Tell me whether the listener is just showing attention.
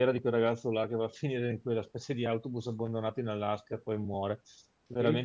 No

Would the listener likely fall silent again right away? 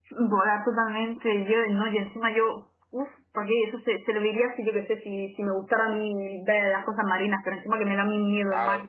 No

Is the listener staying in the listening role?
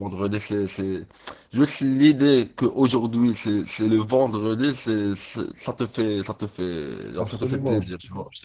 No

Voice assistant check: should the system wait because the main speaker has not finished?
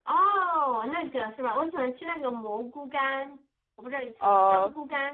No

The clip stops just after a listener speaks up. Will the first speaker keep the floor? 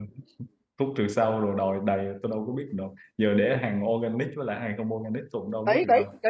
No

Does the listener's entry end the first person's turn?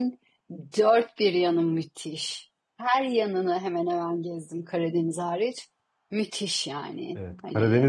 Yes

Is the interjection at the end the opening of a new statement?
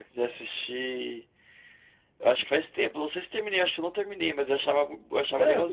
Yes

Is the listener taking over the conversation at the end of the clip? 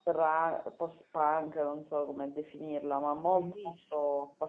No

